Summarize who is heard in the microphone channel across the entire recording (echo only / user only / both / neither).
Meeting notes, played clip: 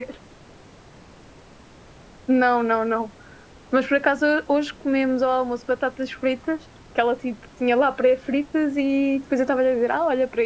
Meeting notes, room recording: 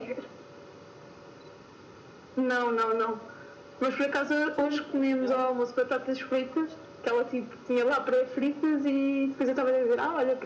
both